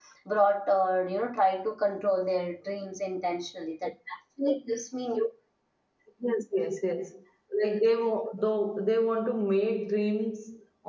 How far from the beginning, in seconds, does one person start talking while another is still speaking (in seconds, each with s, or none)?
none